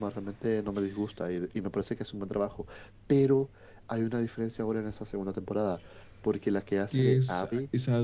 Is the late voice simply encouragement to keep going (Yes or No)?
No